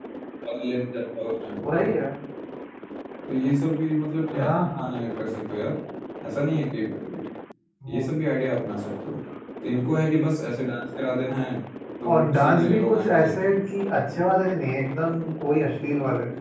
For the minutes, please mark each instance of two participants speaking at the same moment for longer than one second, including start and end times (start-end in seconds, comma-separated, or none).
12.1-13.5